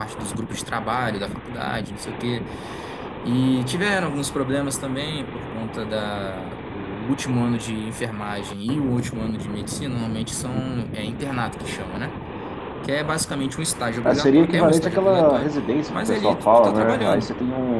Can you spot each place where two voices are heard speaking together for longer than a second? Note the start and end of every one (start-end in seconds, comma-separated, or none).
14.0-15.5, 15.9-17.3